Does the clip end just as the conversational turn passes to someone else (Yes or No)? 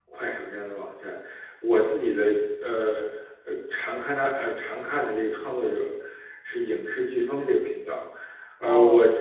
No